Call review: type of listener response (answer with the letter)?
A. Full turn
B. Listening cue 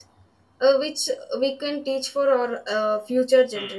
A